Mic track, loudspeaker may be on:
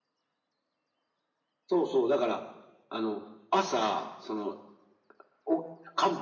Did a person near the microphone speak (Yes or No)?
No